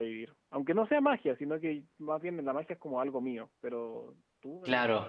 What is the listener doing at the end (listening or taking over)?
taking over